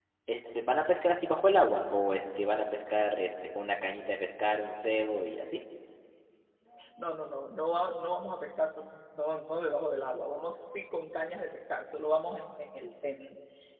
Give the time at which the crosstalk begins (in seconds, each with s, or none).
none